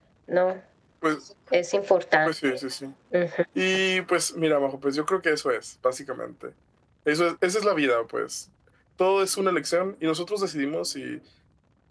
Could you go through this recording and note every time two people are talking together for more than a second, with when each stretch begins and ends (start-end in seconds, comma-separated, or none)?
none